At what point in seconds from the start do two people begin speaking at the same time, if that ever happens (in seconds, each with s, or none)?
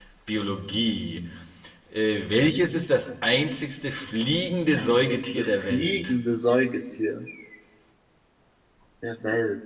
4.8 s